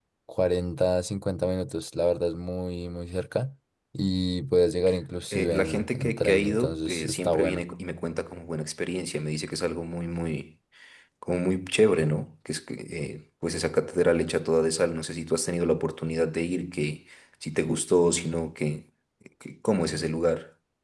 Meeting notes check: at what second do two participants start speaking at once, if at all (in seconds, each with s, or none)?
5.3 s